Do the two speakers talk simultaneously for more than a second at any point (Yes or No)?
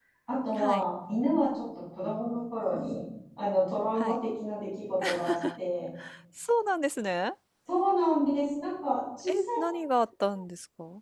No